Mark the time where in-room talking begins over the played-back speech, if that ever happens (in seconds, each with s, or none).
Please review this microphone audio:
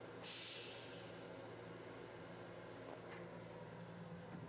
none